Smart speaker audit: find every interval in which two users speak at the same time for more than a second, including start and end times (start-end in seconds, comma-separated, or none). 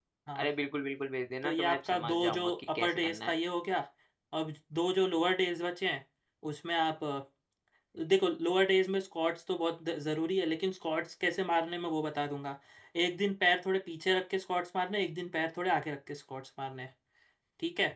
1.4-3.3